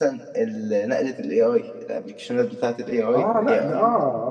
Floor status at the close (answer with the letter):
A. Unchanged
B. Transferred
B